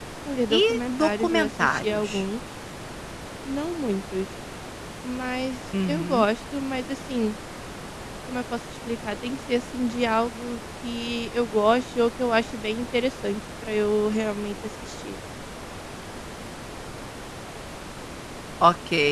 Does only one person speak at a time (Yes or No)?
No